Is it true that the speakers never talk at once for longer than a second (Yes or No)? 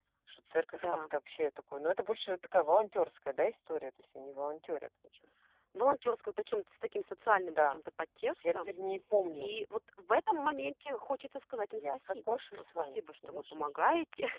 No